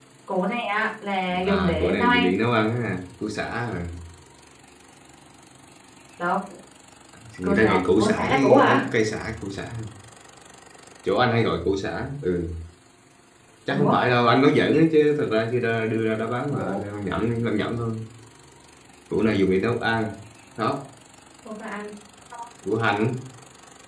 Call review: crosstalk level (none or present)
present